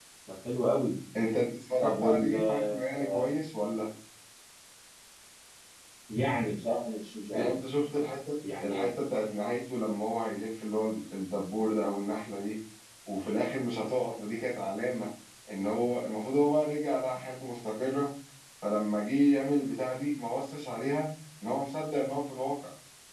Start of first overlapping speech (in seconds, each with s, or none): 1.8 s